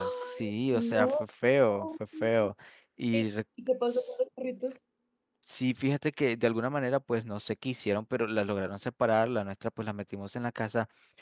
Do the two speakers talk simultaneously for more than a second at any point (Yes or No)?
Yes